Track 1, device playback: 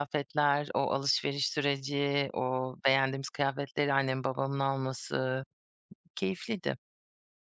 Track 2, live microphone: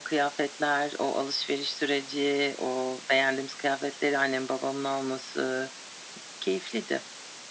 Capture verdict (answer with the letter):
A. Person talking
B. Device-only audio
B